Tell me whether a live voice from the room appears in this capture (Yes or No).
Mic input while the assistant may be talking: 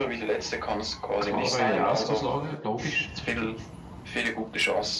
Yes